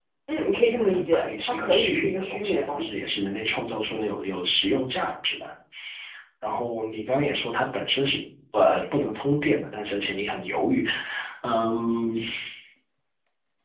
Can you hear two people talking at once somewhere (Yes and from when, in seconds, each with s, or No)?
Yes, from 0.9 s